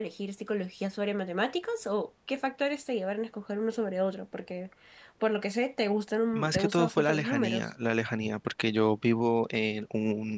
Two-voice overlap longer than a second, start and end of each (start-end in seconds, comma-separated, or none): 6.3-7.7